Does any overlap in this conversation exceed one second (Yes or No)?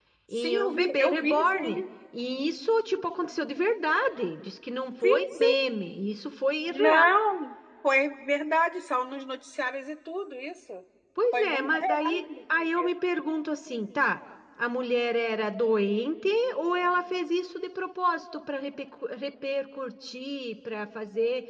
Yes